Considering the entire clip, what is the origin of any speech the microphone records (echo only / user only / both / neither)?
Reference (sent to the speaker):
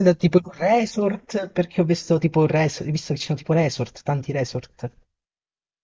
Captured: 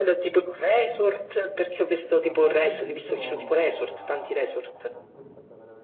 both